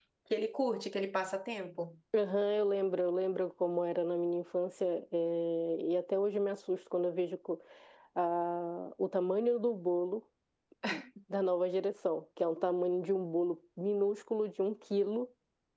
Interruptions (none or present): none